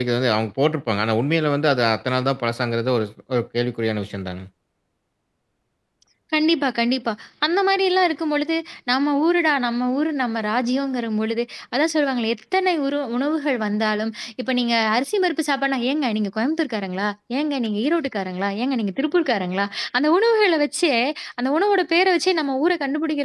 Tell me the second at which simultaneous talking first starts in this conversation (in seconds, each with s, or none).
none